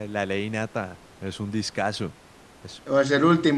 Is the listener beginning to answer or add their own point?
Yes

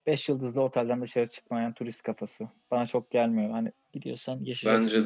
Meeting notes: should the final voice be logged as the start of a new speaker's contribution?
Yes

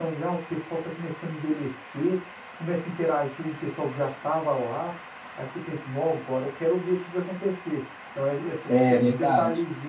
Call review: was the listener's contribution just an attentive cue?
Yes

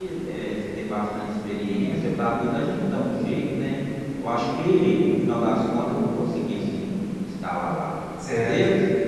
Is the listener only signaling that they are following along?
No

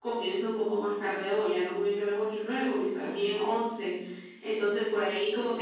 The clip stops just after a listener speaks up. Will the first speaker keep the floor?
Yes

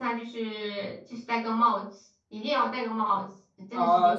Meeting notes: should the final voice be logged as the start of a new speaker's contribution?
Yes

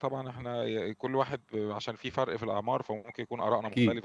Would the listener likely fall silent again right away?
No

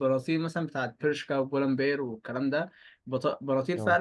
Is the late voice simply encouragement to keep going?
Yes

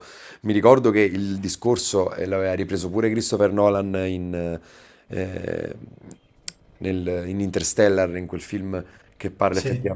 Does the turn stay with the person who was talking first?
Yes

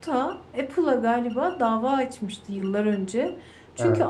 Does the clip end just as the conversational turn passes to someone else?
No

